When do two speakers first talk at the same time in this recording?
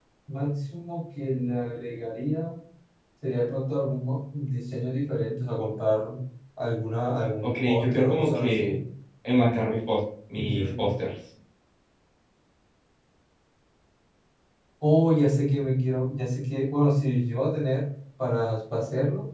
7 s

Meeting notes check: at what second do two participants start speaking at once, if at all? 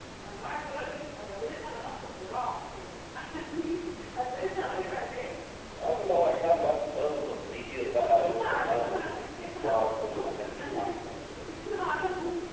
8 s

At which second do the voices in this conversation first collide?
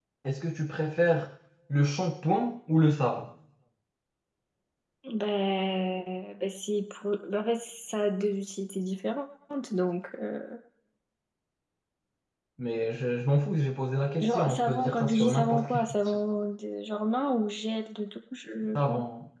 14 s

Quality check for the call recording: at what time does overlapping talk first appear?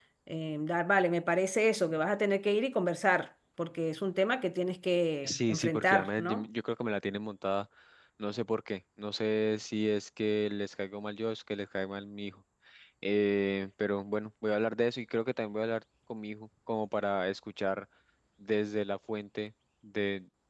5 s

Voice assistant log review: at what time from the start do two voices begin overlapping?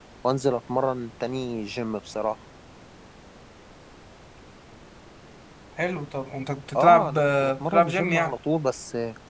7 s

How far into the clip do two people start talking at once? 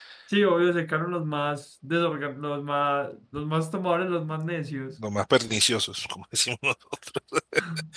none

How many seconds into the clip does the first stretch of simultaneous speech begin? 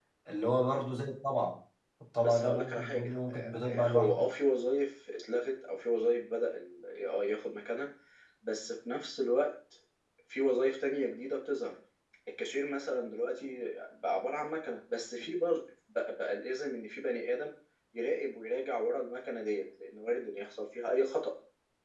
2 s

